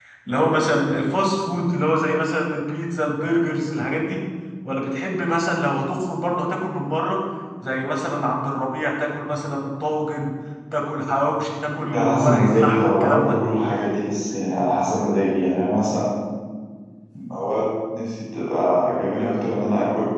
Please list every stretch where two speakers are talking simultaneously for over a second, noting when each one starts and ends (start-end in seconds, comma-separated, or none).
11.9-13.4